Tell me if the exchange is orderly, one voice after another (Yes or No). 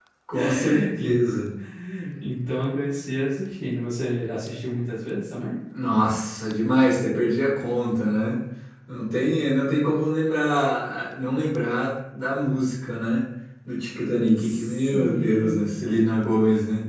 No